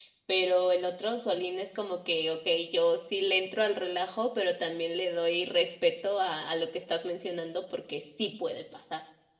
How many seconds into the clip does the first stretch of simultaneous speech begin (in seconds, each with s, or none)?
none